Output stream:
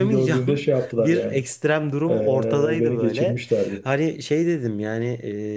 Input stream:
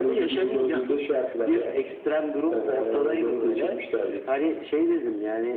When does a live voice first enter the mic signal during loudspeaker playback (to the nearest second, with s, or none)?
none